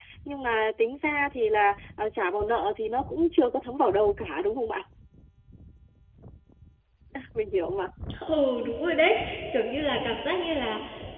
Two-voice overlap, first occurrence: none

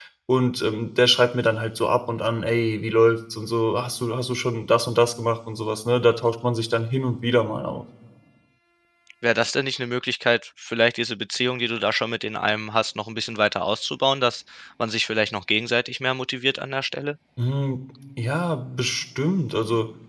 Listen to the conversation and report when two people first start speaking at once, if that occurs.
none

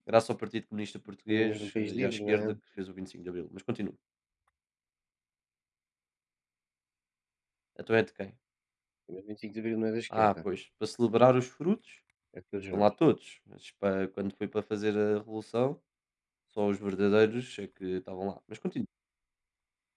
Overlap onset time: 1 s

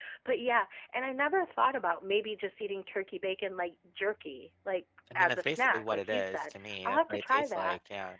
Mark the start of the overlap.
5 s

